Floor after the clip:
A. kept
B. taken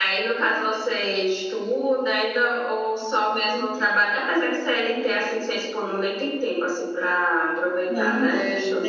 B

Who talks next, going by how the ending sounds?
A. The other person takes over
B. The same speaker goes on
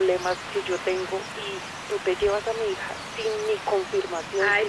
A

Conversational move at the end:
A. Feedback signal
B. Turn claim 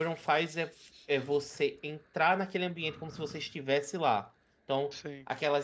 A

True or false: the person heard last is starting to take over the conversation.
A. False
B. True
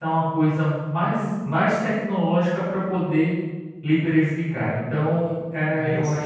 A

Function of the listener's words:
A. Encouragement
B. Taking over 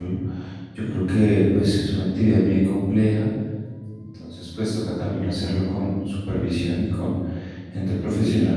A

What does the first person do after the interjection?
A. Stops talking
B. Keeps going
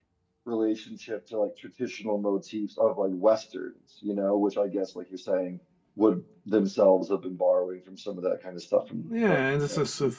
A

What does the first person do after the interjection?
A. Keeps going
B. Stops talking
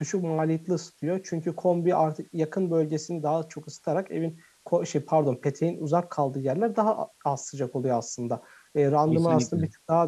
A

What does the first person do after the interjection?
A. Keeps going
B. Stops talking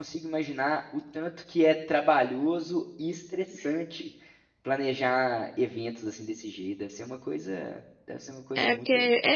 B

